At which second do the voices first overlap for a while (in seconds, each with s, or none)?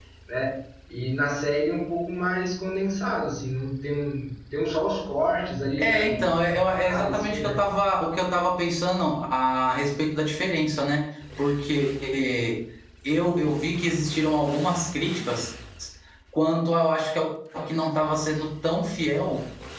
5.8 s